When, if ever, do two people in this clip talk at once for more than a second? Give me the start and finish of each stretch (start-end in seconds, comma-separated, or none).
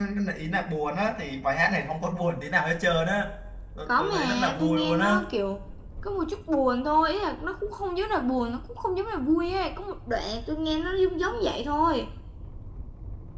3.9-5.2